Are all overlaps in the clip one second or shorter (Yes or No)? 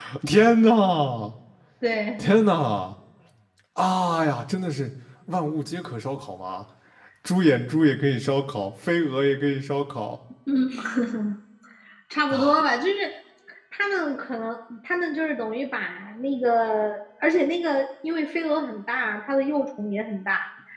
Yes